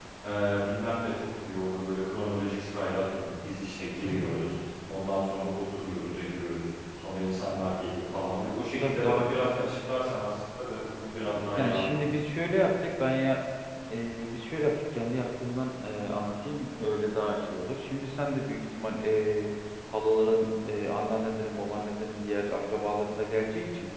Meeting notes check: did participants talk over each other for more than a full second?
No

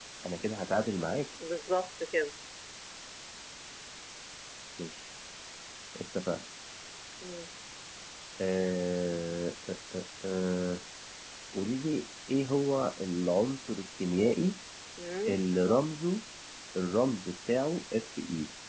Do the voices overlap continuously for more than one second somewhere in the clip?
No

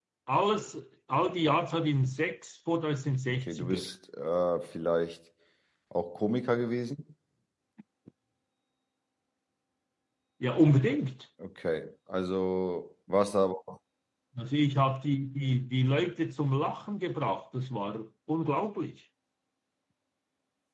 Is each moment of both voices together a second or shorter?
Yes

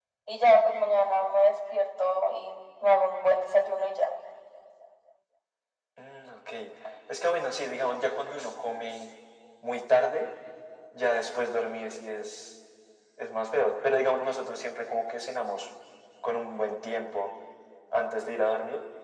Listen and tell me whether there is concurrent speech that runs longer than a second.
No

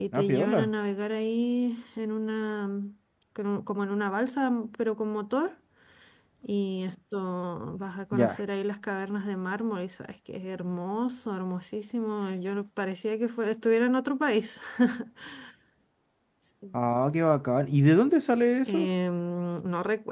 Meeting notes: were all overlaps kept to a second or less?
Yes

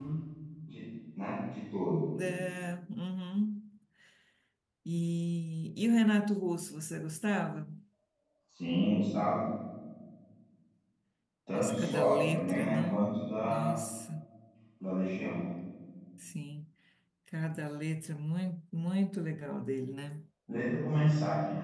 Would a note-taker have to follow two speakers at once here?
Yes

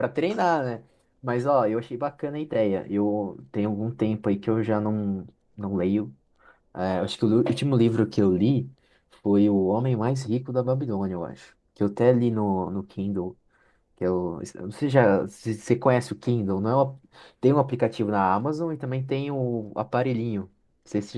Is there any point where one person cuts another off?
No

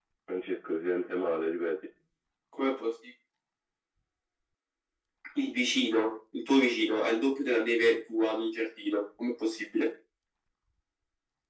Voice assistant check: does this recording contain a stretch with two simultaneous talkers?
No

